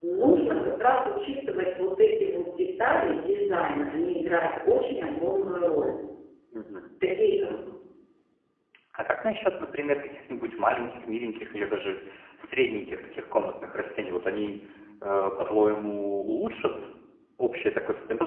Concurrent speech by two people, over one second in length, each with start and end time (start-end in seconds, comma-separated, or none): none